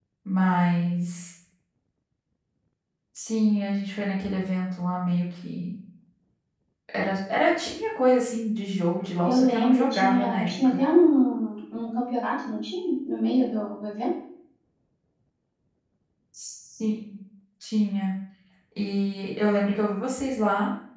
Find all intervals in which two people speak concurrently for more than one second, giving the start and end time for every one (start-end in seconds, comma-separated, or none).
9.2-10.8